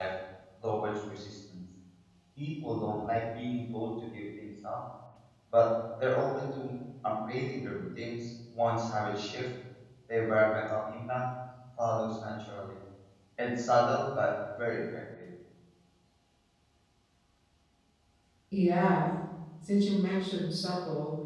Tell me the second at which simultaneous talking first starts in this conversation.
none

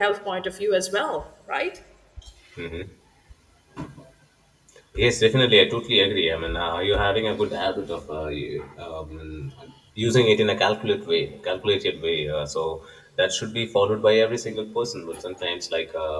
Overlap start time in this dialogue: none

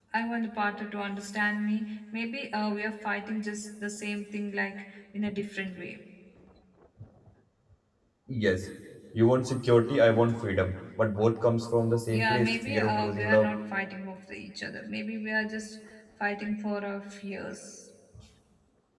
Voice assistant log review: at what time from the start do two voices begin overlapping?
12 s

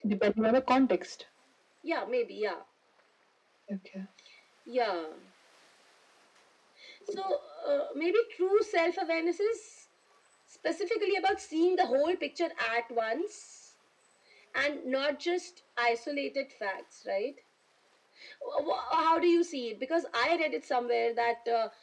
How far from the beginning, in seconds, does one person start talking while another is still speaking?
none

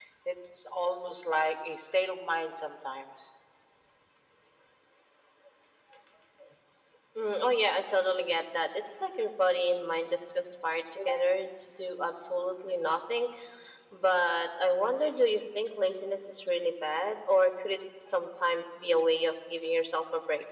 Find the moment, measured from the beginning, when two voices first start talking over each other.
none

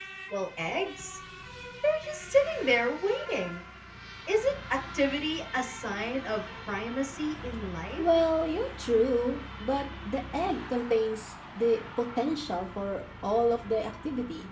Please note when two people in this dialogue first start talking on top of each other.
none

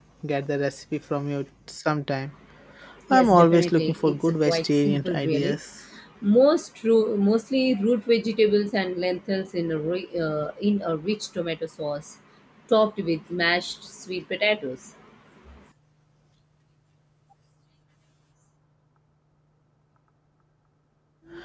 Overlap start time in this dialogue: 3 s

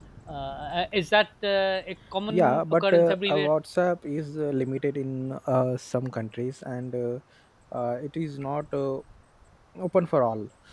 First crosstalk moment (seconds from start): 2 s

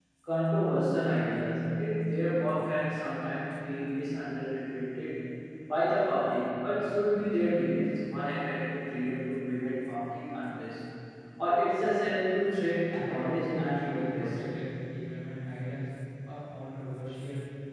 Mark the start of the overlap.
13 s

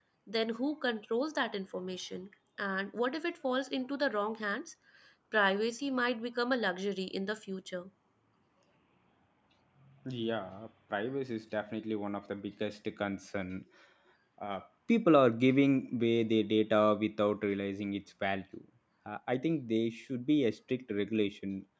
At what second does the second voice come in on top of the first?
none

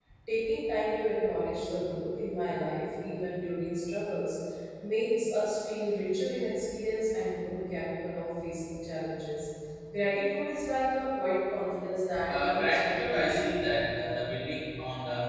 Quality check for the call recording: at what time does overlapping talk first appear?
12 s

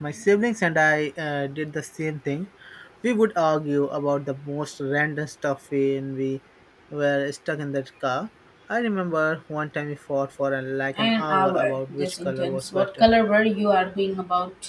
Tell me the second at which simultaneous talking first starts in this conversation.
11 s

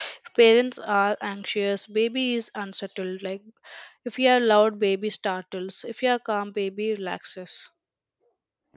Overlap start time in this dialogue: none

